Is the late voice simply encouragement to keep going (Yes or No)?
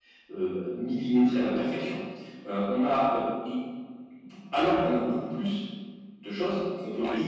Yes